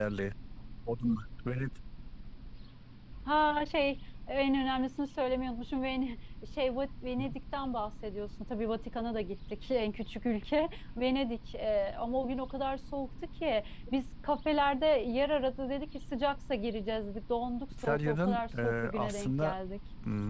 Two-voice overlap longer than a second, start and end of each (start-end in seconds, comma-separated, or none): 17.8-19.5